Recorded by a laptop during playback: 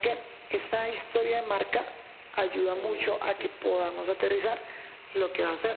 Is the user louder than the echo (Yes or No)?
No